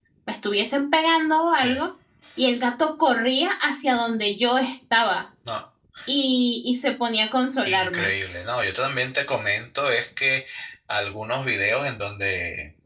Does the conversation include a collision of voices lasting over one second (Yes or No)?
No